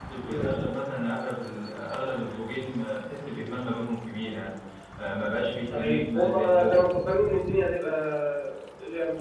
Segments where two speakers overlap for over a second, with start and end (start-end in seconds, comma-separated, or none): 5.7-6.9